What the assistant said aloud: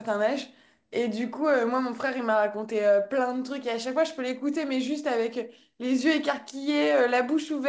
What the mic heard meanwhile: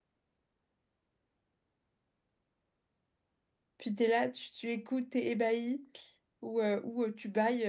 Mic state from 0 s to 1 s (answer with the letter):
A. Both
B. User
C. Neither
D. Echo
C